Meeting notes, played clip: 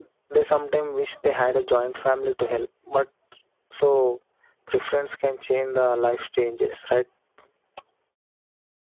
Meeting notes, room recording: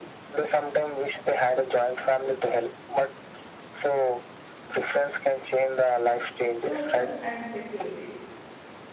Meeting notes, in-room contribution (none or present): present